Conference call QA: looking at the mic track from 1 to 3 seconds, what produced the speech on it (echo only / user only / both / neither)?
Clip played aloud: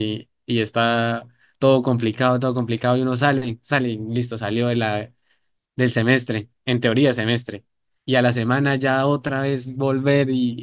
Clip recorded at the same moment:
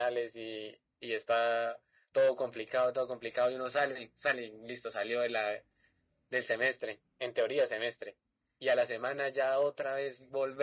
echo only